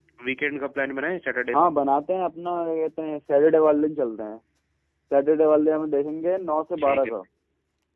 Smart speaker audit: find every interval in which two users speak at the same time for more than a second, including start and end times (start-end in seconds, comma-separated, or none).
none